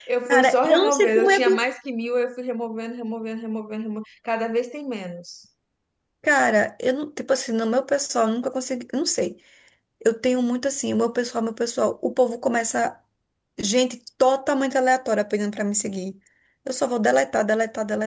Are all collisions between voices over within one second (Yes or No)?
No